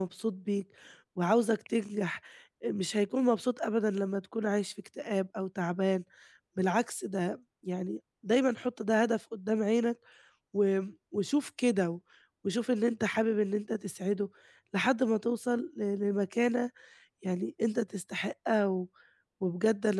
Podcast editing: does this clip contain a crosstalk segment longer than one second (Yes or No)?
No